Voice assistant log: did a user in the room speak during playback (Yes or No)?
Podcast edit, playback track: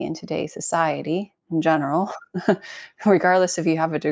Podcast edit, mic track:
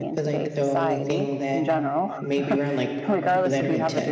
Yes